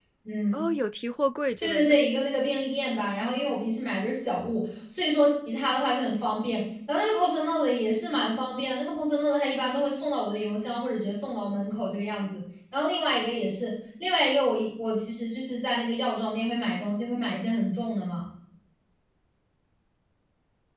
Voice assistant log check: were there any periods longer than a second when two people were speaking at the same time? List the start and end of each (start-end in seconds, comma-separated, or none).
none